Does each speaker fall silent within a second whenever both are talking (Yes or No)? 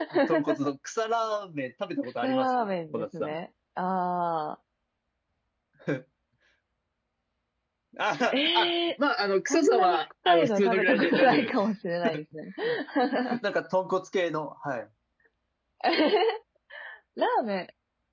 No